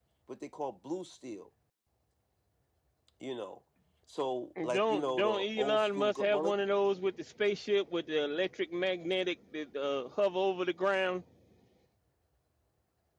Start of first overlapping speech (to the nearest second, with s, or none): 5 s